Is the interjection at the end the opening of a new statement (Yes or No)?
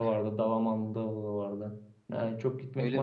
No